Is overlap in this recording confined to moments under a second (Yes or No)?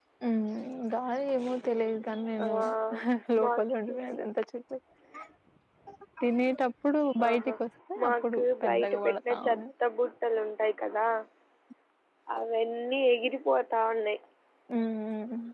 No